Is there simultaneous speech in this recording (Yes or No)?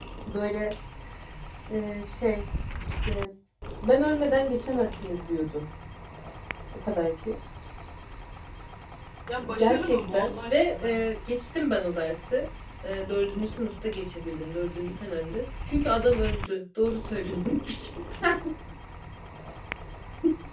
Yes